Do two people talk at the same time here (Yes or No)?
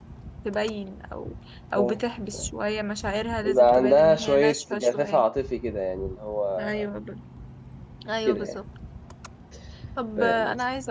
Yes